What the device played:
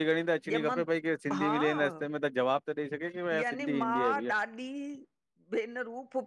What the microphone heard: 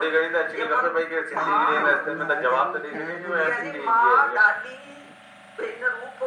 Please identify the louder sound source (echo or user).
echo